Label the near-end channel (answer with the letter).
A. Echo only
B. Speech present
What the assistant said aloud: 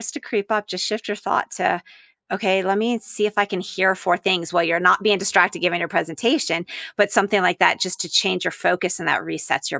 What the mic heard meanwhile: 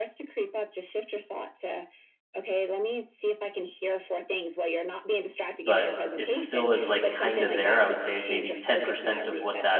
B